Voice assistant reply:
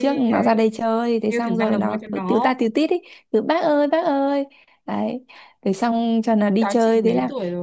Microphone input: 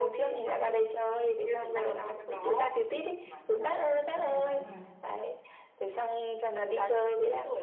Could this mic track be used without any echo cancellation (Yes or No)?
No